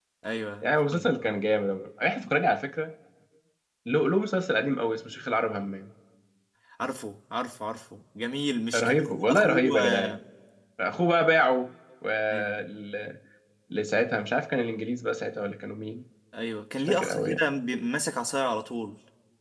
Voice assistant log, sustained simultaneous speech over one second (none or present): present